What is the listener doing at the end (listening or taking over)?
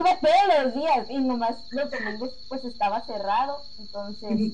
taking over